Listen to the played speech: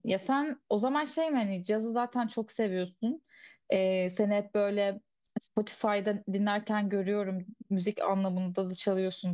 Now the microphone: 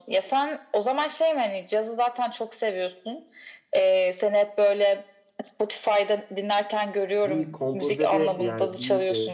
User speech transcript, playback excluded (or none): bir kompozede yani bir